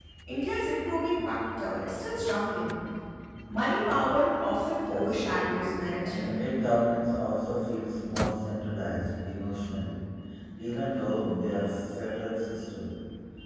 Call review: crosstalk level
present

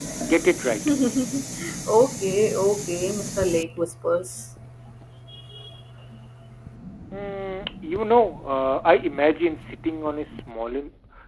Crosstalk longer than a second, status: none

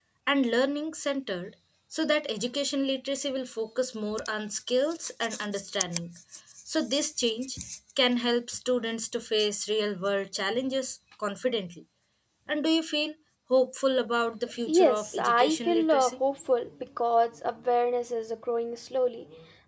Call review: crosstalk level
present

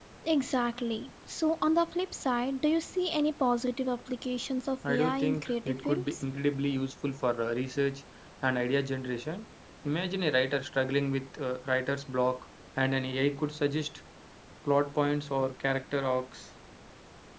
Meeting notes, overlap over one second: present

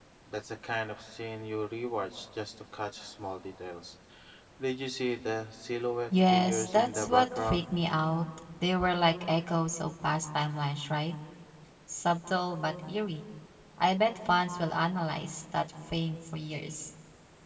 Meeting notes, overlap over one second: present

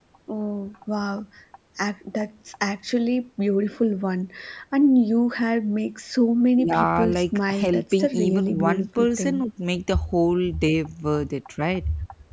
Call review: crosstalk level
present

